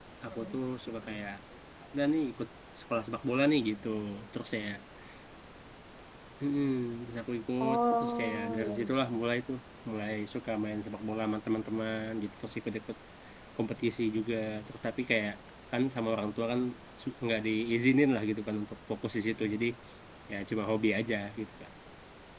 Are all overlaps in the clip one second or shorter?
No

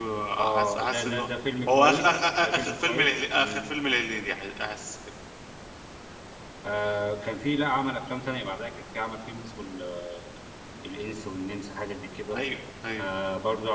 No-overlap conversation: No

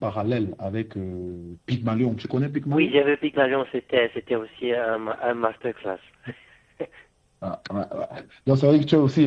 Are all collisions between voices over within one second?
Yes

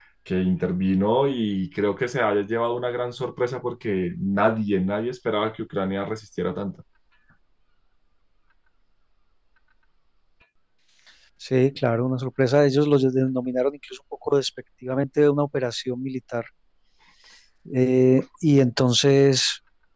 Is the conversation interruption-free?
Yes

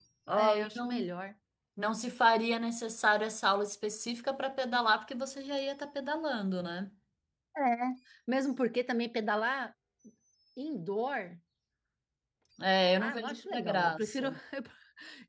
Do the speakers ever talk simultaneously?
Yes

